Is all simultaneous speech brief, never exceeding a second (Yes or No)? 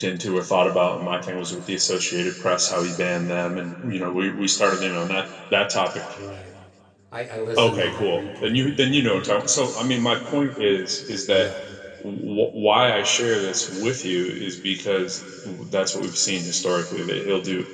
No